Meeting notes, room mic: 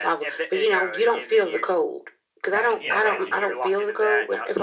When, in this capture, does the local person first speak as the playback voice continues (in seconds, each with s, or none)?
2.5 s